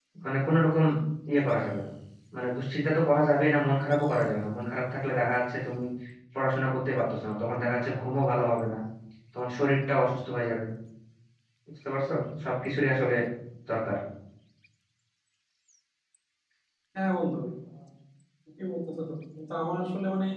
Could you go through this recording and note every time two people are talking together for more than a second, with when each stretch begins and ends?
none

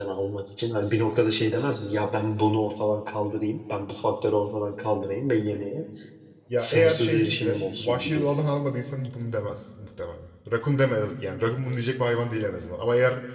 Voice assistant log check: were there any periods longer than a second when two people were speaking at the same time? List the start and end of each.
6.6-8.3

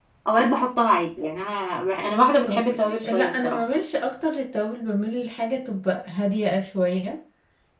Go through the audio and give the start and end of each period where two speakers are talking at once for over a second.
2.4-3.6

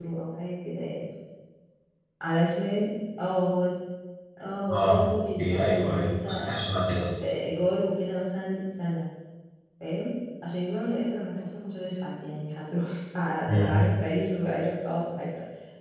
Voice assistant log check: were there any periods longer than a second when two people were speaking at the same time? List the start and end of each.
4.7-6.5

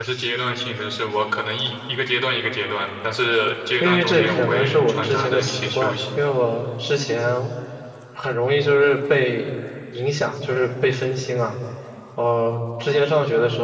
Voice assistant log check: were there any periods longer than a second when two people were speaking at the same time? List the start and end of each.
3.8-6.0

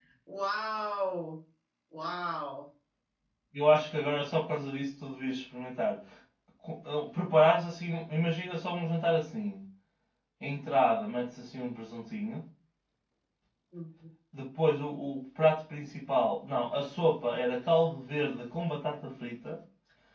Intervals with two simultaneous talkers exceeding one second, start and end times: none

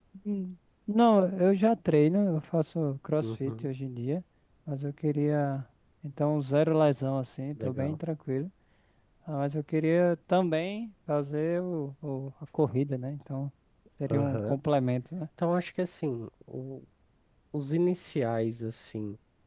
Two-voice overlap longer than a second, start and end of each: none

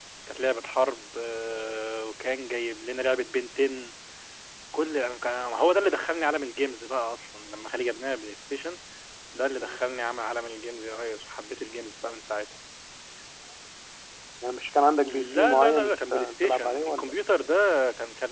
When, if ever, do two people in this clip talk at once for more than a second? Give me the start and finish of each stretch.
15.1-17.1

